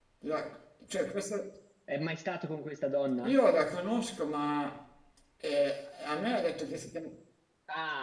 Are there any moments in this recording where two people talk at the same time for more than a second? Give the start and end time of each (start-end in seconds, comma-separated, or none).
none